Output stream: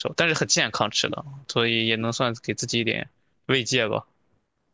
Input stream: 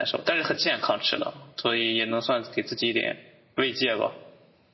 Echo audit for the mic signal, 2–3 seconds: echo only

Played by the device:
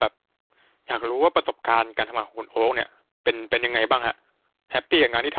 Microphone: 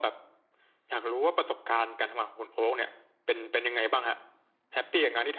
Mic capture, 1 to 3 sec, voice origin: echo only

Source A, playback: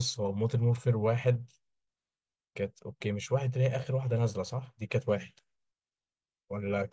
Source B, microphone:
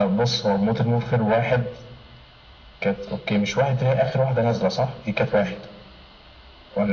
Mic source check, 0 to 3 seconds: echo only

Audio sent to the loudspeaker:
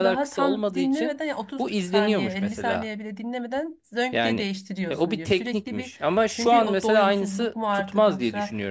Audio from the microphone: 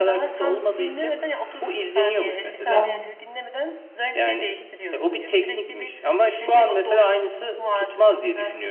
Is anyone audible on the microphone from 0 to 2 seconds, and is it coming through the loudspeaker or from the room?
echo only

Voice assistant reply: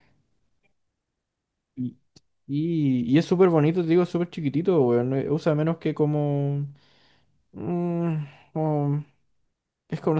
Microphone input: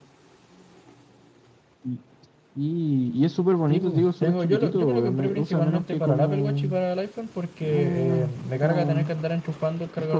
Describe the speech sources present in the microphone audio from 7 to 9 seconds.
both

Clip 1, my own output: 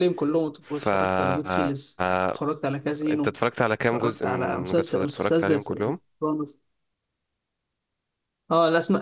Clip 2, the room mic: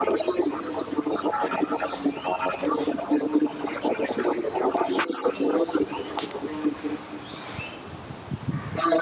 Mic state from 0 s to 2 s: echo only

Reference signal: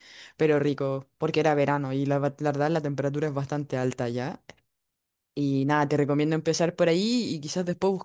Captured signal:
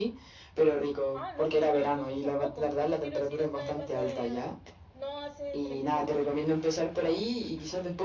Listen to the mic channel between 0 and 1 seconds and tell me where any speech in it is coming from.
echo only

